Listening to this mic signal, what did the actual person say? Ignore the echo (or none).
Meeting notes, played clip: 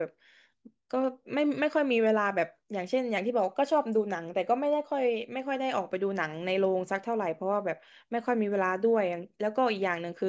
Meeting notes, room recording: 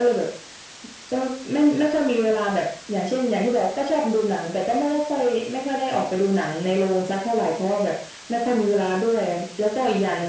none